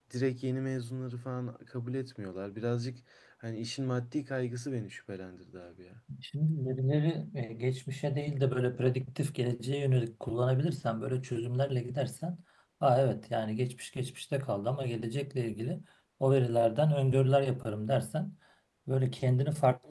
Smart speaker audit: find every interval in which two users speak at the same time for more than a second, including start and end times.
none

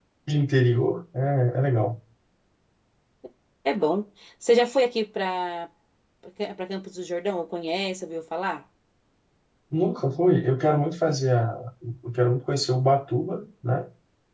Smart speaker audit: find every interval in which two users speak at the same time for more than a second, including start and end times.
none

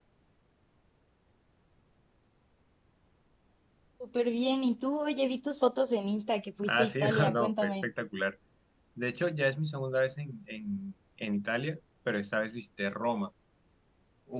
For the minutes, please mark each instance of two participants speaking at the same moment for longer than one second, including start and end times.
6.6-7.9

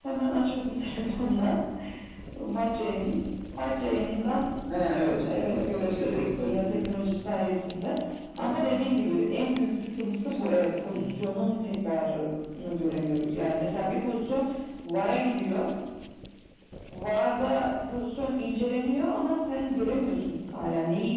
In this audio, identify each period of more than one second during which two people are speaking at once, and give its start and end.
5.2-6.8

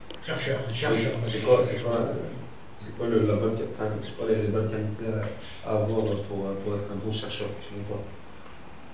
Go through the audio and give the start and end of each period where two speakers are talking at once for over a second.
0.8-2.2

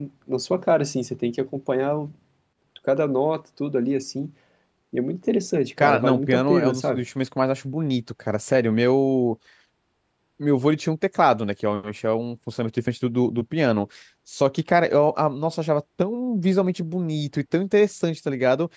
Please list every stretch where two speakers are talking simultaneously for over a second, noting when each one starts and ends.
5.8-7.0

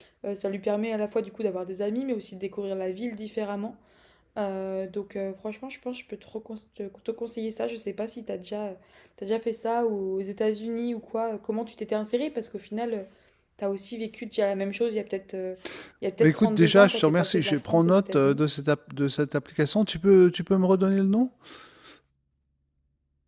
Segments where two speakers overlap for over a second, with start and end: 16.2-18.4

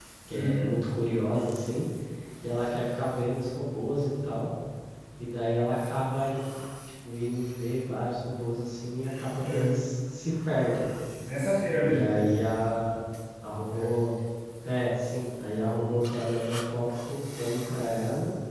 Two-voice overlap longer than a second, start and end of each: none

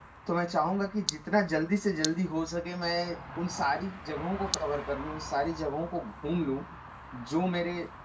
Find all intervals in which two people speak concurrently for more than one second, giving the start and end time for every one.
none

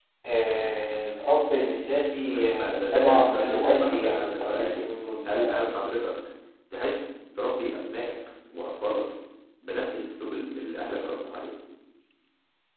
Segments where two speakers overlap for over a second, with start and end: 2.3-4.8

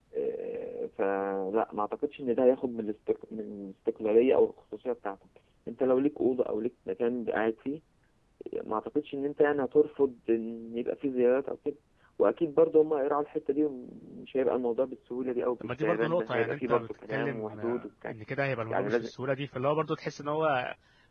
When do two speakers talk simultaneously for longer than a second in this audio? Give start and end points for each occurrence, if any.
15.6-18.1

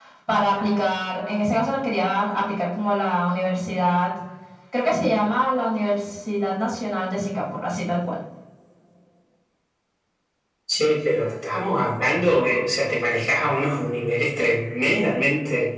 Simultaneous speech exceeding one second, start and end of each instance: none

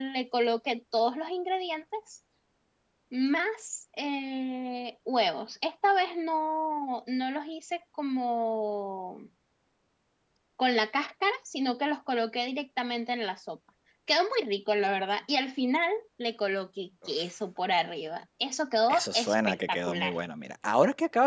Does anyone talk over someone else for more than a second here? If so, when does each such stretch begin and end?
18.9-20.1

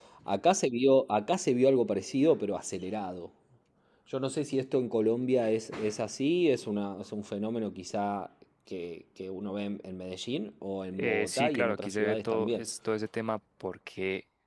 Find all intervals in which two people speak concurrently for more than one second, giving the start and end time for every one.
10.9-12.7

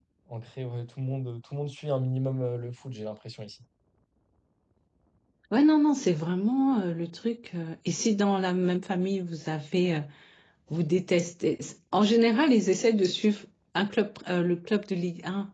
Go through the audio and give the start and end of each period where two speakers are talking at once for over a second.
none

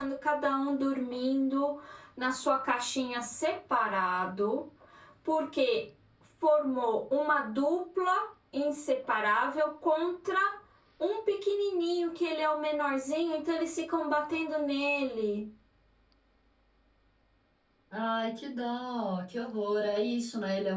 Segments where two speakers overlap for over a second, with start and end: none

